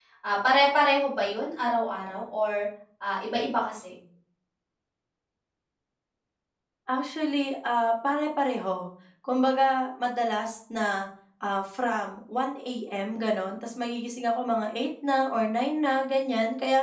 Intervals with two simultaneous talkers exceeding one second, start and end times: none

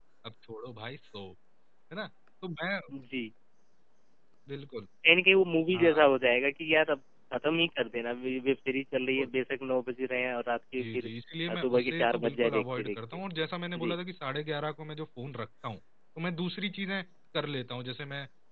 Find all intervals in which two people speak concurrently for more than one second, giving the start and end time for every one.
11.5-13.0

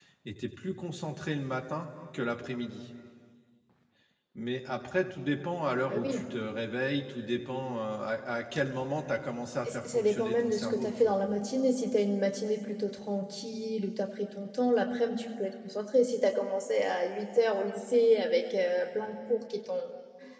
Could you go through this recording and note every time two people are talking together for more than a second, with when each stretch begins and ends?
9.7-11.2

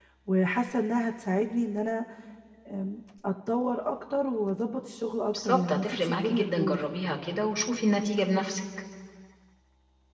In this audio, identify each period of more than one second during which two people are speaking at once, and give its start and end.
5.3-6.8

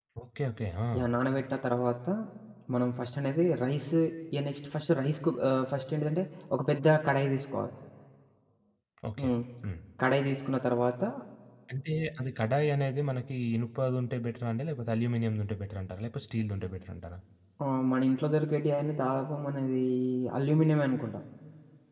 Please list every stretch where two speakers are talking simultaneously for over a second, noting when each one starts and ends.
none

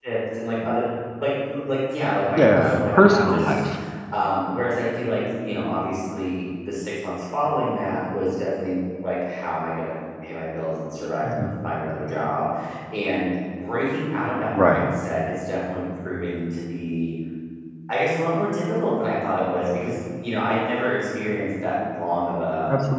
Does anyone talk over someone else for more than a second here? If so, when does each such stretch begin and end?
2.4-3.6

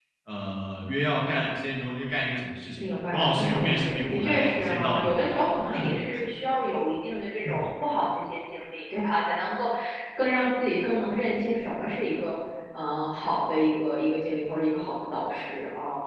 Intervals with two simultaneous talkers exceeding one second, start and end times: 2.8-5.2

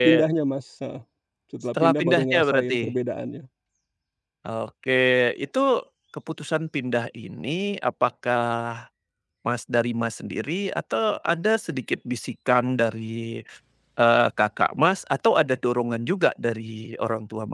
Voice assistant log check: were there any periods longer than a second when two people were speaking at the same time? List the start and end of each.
1.8-3.0

